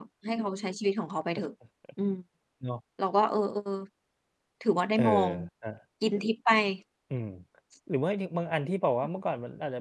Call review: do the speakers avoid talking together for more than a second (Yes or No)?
Yes